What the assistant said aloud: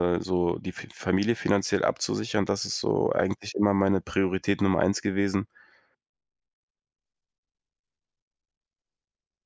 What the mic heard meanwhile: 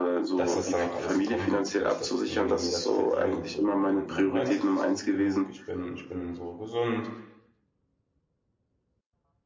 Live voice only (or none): dass das dann auch alles so kommen wird, weil ich das v mir das verdiene so und mein Mindset ist gut genug. Ich bin ich bin so gesund,